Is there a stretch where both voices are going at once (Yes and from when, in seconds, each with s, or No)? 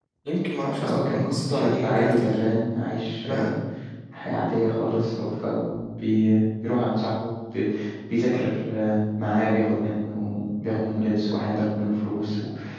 Yes, from 0.8 s